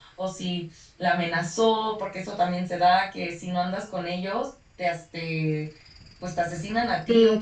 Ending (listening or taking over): taking over